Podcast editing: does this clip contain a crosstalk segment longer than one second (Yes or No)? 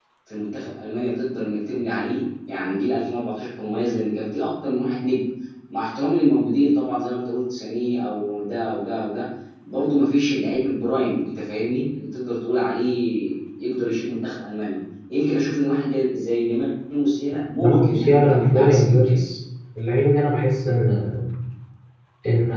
Yes